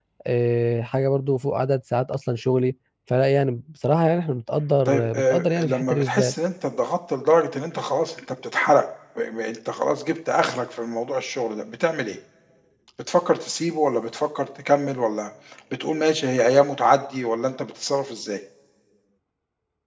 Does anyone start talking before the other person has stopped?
Yes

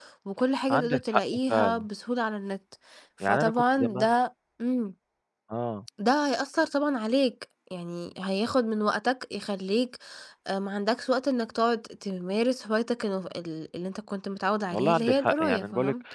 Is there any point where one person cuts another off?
Yes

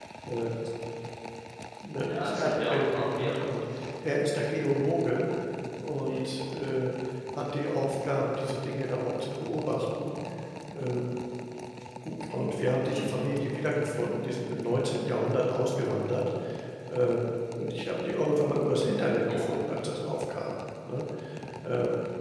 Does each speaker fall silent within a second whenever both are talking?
No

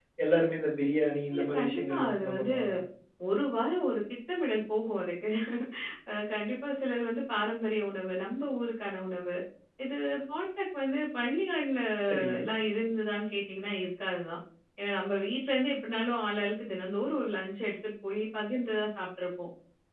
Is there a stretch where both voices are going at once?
Yes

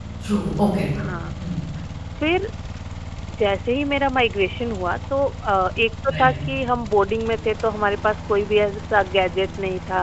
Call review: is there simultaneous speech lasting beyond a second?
No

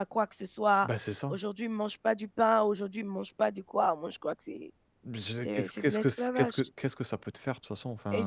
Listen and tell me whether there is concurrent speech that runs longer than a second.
Yes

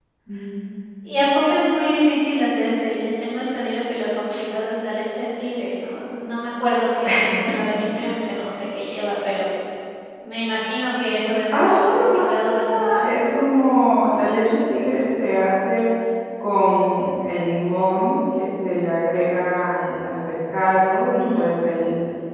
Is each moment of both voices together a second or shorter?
No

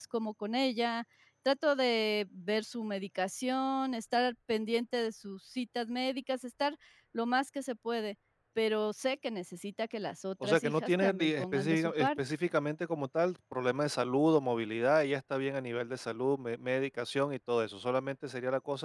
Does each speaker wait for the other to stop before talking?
No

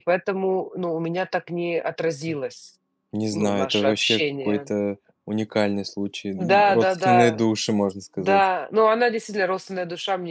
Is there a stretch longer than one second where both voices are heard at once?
Yes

